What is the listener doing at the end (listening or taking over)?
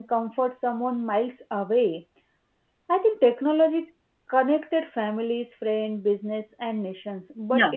listening